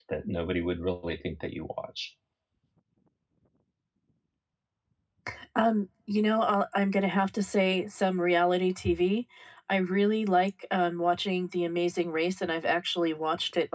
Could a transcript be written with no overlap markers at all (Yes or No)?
Yes